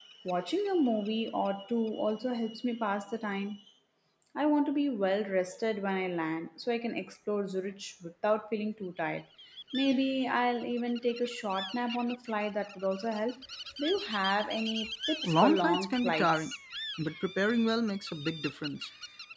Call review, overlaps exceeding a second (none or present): present